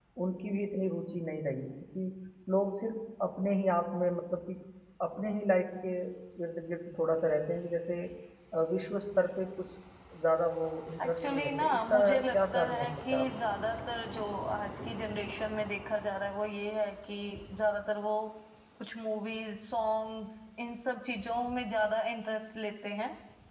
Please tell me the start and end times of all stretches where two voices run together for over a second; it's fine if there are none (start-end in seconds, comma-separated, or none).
11.0-13.3